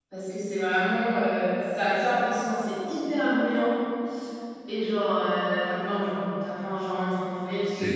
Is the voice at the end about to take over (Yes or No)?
No